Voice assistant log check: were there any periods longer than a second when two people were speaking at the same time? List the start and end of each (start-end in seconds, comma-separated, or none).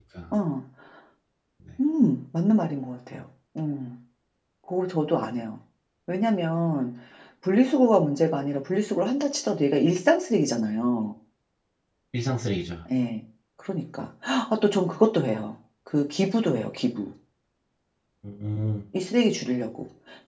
none